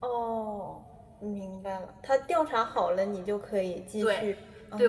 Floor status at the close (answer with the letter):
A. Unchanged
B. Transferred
B